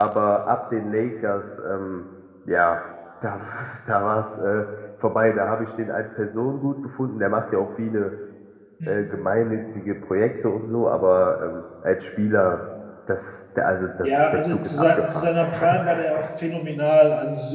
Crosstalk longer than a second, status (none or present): present